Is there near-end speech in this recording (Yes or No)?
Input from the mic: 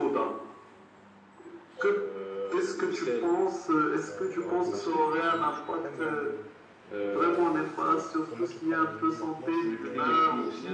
Yes